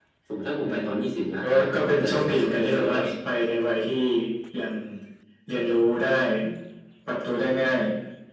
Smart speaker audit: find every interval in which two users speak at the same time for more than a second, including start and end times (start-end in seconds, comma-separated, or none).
1.4-3.0